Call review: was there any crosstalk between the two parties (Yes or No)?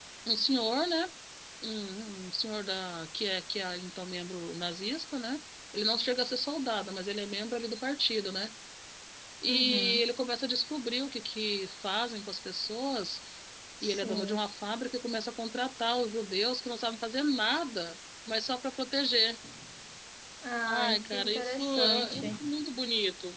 Yes